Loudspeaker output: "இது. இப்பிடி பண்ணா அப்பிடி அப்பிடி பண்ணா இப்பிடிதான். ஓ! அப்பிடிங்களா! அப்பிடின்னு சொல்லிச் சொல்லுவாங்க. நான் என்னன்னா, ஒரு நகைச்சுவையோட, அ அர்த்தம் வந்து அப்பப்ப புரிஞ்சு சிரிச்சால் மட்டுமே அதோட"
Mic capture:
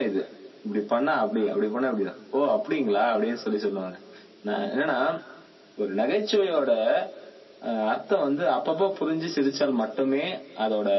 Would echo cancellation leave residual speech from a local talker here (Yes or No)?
No